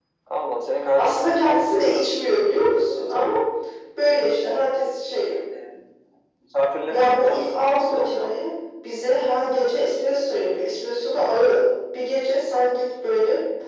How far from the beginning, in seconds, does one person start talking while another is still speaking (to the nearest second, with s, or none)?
1 s